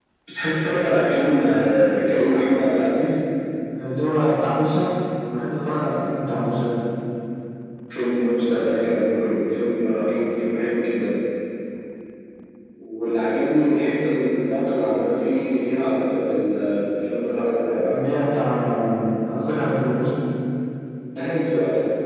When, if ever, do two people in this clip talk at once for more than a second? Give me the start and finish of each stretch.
none

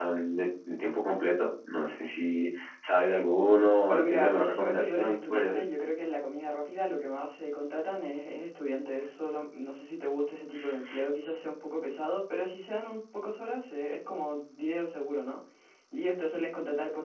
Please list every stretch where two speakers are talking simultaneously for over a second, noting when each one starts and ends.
3.9-5.6

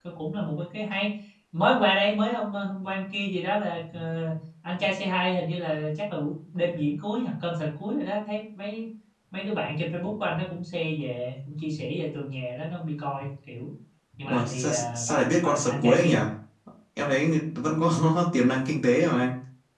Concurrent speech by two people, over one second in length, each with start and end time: 14.3-16.1

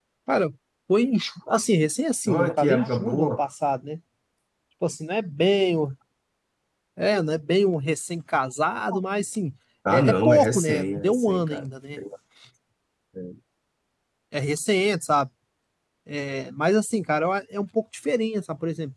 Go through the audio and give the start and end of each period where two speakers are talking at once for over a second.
2.3-3.5, 9.9-12.0

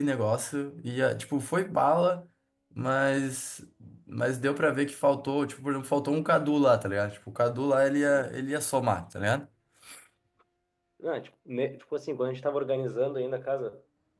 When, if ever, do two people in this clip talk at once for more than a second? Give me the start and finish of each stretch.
none

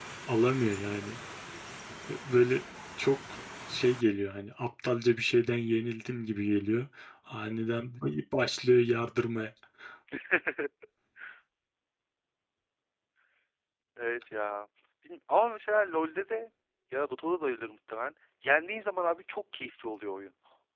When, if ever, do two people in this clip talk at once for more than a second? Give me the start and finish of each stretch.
none

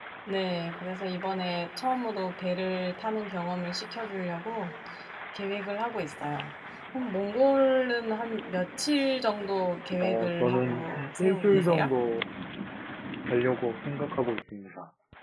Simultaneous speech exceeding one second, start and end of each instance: 10.0-11.9

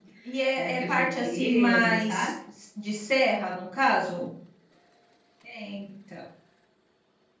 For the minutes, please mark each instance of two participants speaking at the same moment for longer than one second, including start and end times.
0.6-2.3

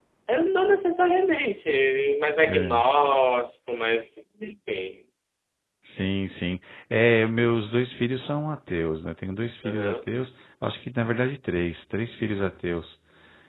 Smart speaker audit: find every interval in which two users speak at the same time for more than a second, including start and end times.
none

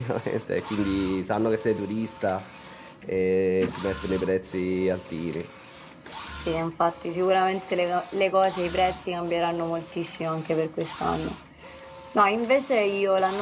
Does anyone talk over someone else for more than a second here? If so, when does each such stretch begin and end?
none

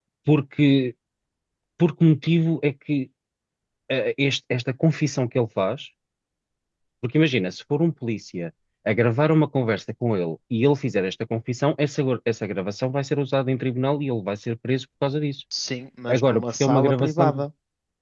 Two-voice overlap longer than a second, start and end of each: 16.1-17.4

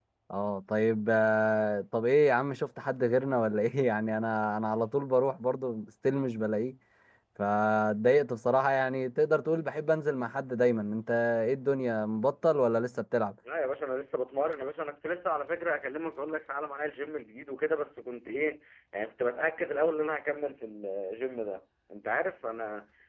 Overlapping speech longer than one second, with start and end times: none

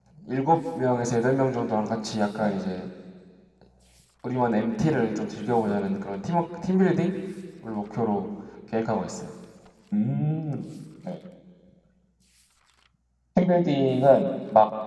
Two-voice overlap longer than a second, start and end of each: none

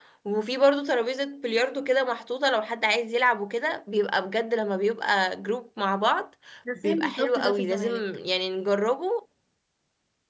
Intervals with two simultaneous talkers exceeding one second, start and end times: 6.8-8.0

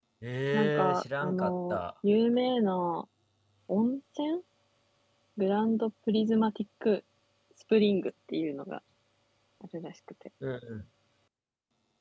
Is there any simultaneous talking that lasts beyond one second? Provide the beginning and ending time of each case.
0.5-1.8

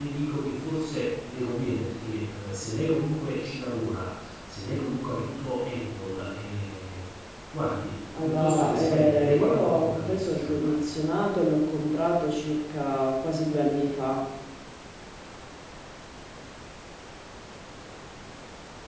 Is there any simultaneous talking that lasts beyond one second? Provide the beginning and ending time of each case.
8.2-10.8

